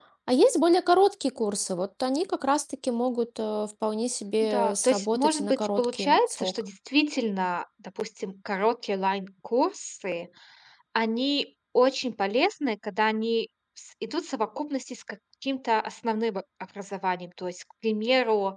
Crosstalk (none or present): present